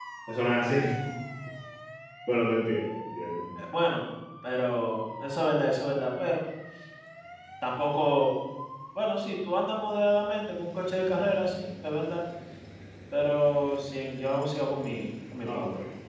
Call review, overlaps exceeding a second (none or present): none